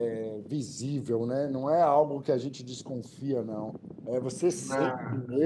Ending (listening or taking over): listening